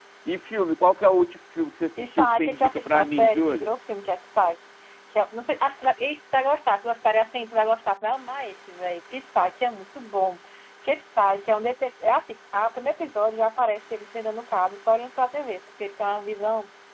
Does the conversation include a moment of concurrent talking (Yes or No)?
Yes